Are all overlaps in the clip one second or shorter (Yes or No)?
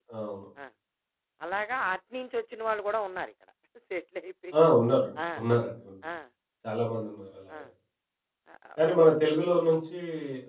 Yes